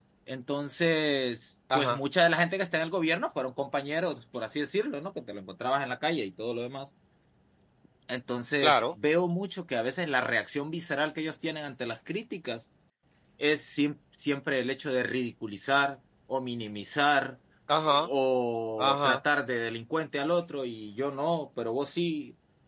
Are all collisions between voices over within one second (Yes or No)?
Yes